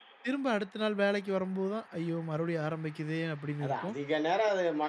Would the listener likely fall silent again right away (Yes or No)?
No